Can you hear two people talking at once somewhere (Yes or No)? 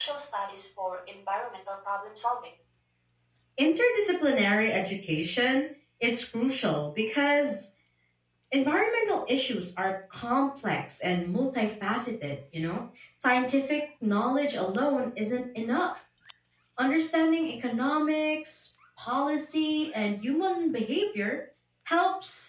No